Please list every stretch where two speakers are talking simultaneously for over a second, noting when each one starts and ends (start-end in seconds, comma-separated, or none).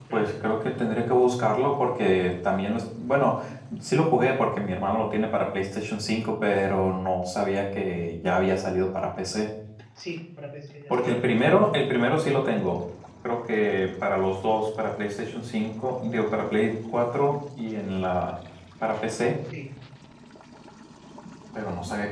none